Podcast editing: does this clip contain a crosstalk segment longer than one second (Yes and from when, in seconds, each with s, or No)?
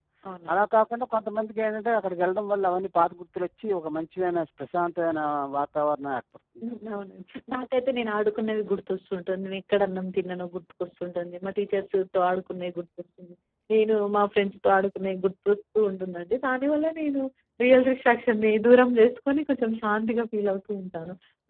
No